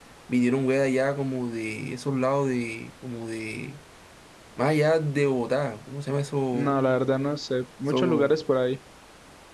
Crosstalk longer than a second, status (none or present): none